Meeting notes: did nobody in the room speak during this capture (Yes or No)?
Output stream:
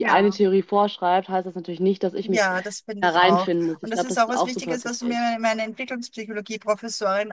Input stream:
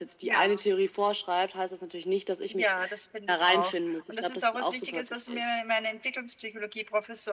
Yes